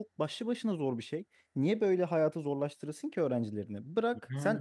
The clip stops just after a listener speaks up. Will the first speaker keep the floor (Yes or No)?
Yes